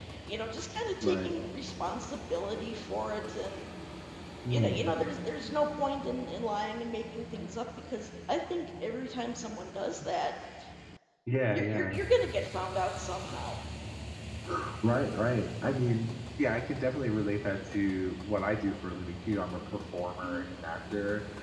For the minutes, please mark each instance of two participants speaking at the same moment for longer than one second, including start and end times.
none

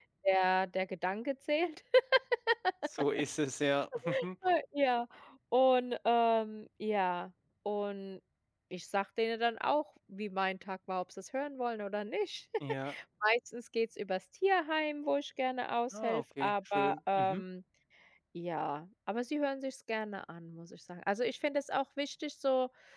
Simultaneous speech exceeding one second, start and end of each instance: 15.9-17.4

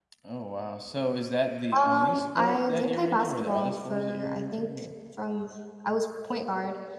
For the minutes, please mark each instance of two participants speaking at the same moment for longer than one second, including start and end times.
1.9-4.7

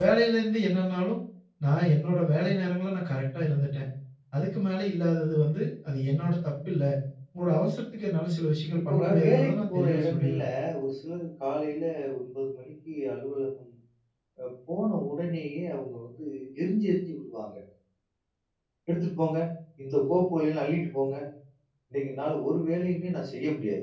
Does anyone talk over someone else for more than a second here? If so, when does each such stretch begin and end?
8.9-10.4

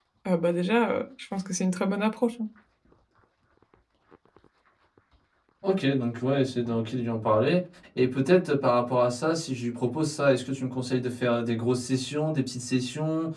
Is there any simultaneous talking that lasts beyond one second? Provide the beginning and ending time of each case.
none

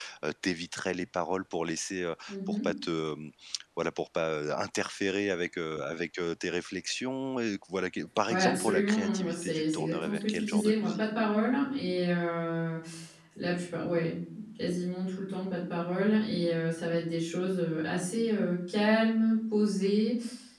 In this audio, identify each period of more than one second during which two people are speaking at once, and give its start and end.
8.3-11.0

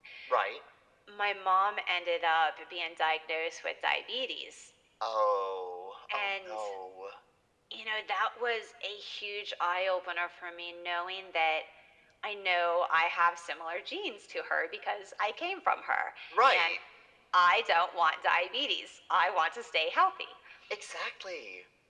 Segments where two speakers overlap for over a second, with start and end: none

